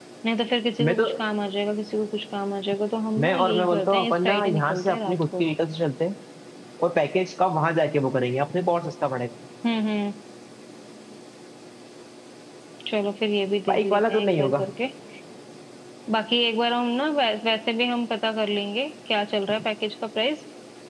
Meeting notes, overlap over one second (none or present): present